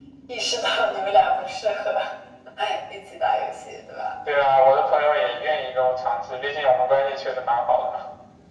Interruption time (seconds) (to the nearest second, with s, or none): none